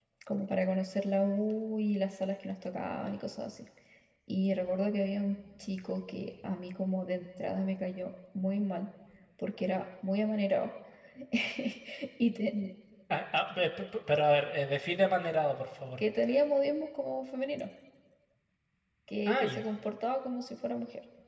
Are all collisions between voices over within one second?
Yes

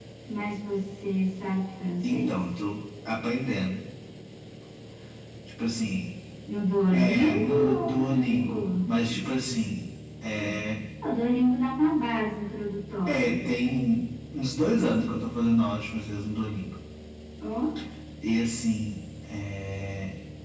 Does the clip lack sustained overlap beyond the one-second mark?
No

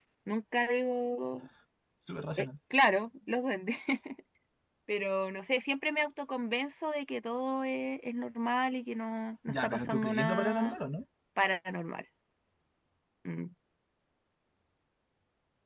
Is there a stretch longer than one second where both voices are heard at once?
Yes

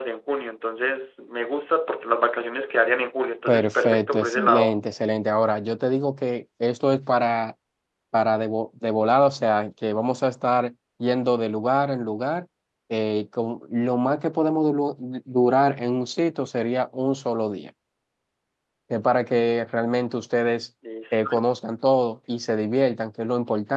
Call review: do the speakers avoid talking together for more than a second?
No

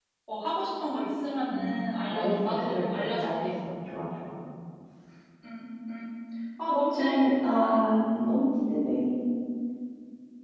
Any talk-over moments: Yes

